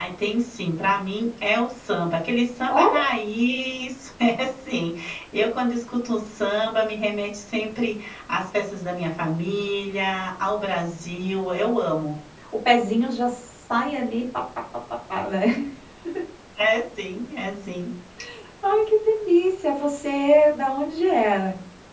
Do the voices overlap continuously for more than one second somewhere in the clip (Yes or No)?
No